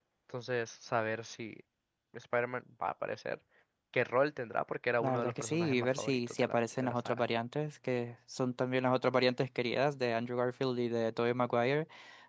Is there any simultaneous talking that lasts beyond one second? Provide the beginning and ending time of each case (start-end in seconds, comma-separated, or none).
5.0-7.2